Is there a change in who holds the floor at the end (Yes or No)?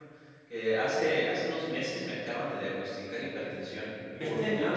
Yes